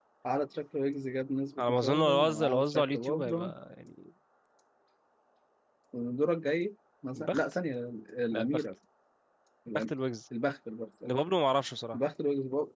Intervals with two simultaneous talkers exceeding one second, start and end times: 1.6-3.5

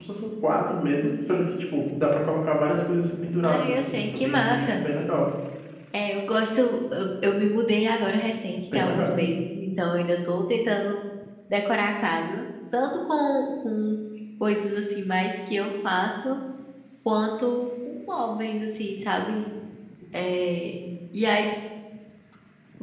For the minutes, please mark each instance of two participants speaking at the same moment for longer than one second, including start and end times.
3.4-4.8

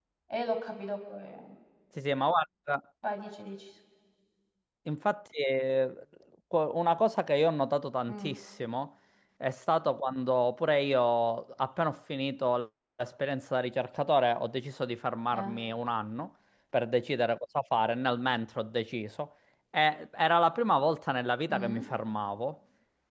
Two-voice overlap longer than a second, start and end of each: none

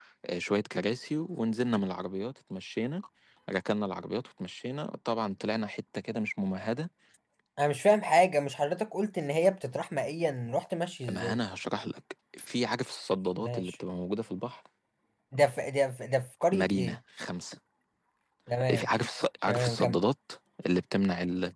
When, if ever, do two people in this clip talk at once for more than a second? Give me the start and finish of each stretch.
none

